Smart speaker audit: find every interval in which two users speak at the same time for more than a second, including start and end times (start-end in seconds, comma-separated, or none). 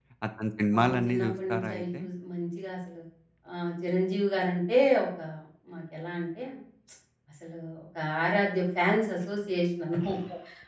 0.7-2.0